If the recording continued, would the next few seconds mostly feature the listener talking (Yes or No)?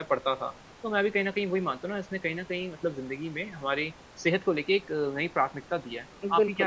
Yes